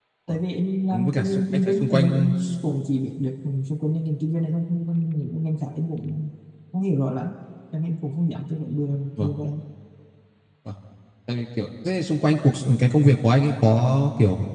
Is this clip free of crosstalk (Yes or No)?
No